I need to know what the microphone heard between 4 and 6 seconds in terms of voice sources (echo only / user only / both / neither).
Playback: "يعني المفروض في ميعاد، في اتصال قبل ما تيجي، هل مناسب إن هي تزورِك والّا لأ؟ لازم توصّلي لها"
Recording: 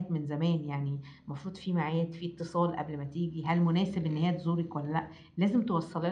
echo only